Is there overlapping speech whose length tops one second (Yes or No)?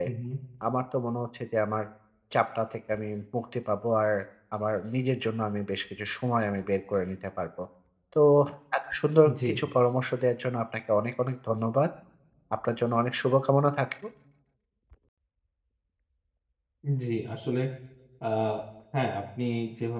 No